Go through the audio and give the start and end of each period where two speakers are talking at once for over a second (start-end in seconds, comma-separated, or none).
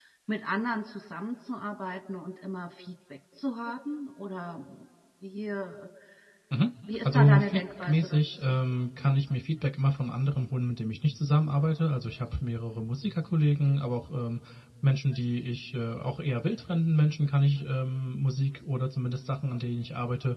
7.0-8.6